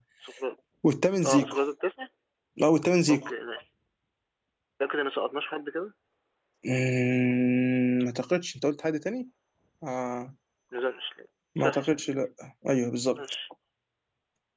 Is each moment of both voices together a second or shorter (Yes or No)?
Yes